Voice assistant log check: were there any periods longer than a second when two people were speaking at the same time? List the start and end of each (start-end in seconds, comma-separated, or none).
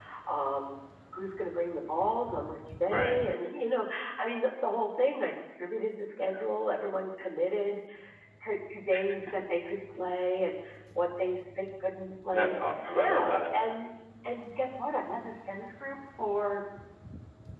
none